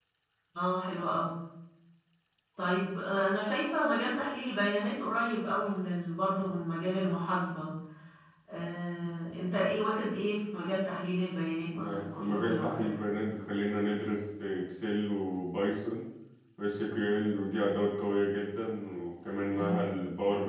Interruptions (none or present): present